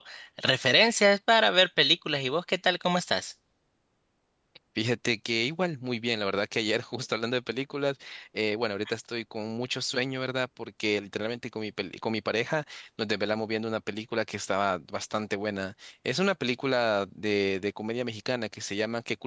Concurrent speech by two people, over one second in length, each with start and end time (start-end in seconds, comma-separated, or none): none